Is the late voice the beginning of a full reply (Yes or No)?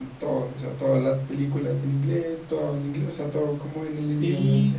Yes